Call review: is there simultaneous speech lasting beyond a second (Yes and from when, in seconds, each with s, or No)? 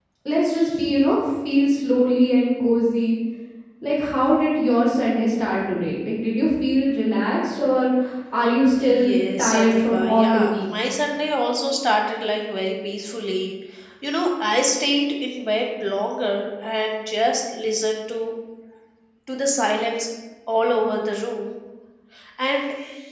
Yes, from 8.8 s